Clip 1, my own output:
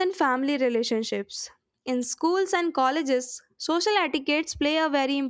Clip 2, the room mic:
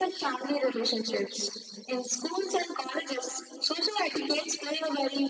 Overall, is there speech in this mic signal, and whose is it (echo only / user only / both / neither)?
echo only